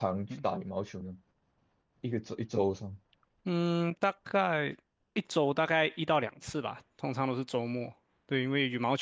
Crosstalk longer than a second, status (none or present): none